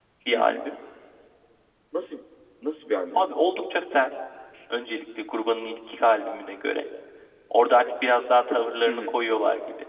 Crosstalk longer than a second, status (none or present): none